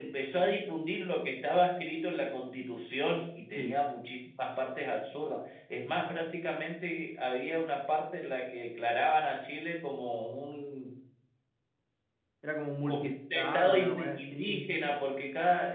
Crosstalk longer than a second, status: present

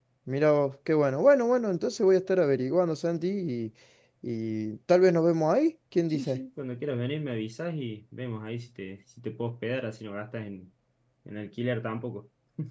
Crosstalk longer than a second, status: none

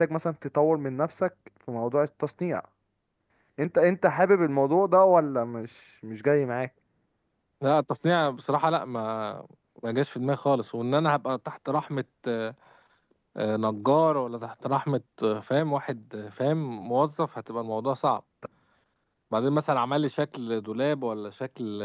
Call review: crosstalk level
none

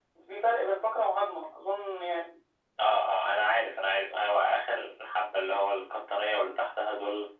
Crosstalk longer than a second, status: none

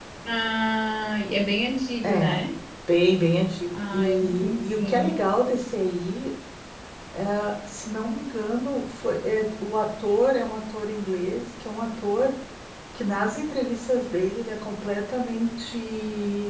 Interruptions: present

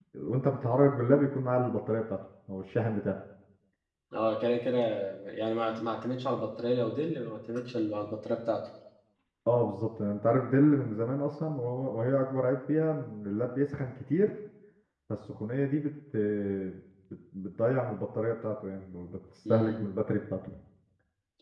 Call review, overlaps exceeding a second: none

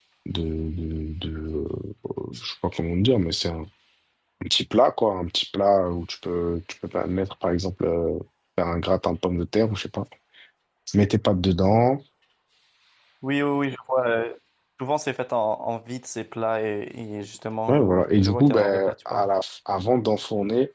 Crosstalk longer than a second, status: present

